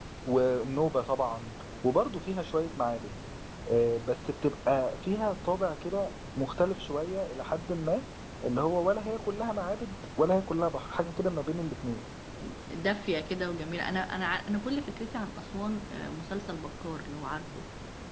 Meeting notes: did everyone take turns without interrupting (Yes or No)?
Yes